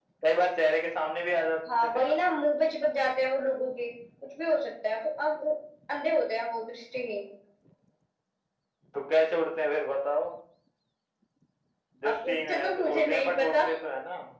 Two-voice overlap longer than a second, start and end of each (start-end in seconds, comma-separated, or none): 12.1-13.6